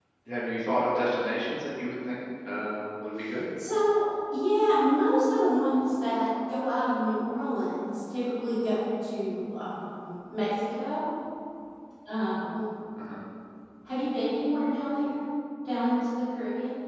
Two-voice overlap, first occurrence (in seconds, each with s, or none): none